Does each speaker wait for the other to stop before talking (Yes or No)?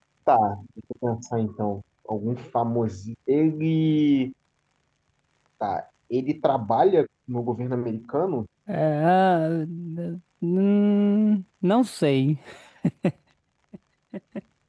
Yes